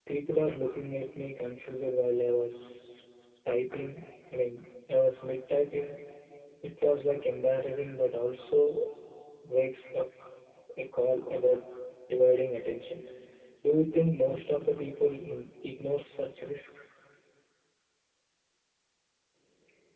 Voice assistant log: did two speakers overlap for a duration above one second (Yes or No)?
No